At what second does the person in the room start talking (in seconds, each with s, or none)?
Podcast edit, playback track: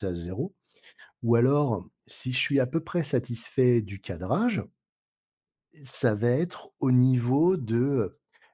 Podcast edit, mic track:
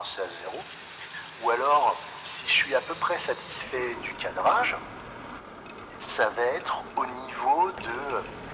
none